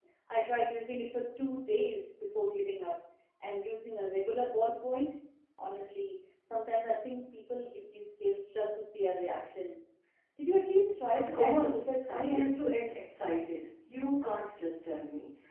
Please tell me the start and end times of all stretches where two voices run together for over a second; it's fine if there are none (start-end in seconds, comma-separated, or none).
11.1-12.4